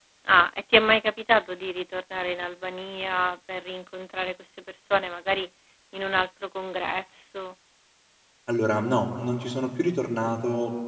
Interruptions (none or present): none